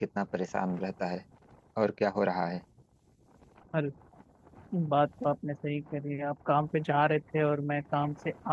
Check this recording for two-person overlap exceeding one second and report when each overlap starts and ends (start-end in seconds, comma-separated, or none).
none